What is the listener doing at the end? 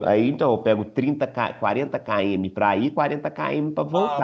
taking over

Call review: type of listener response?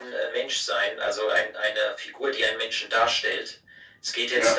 listening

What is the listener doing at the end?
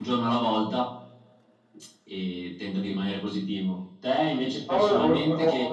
taking over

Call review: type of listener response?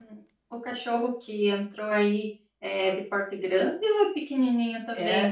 taking over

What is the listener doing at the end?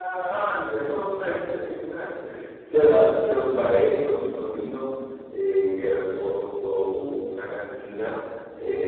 listening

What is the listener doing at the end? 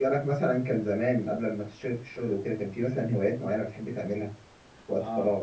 taking over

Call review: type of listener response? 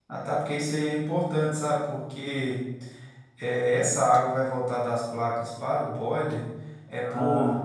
listening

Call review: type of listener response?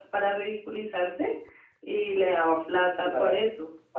taking over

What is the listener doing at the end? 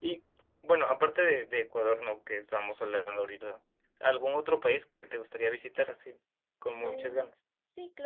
taking over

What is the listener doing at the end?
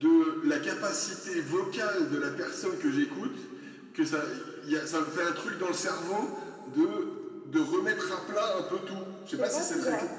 taking over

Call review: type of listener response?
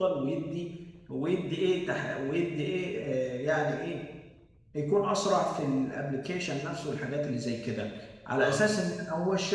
listening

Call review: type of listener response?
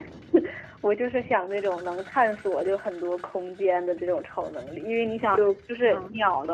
listening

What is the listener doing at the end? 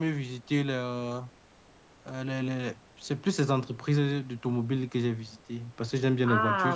taking over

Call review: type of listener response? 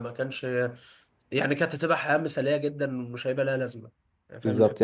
taking over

